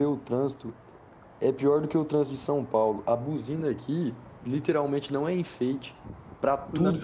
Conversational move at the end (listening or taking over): listening